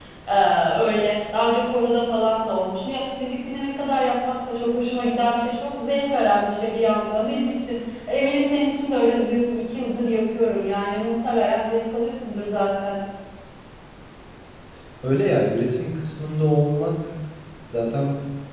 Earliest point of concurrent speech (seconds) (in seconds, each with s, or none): none